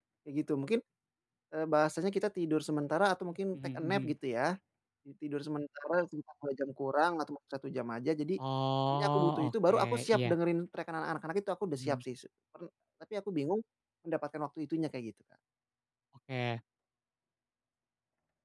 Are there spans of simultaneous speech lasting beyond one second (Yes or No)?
Yes